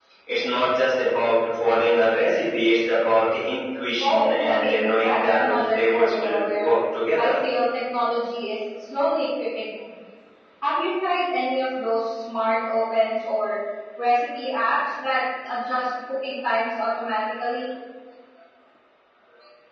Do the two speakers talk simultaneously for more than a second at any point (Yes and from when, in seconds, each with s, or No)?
Yes, from 4.0 s